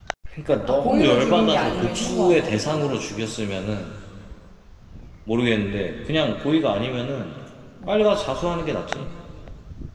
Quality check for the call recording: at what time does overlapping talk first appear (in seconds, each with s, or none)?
0.7 s